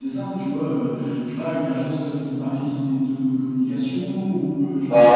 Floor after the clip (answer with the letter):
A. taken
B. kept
A